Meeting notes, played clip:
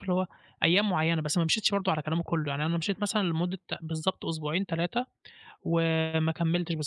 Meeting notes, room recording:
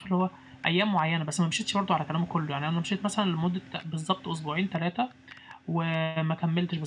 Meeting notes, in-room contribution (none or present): none